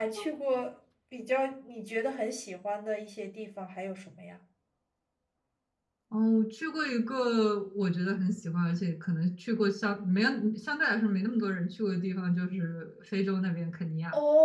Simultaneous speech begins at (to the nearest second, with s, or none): none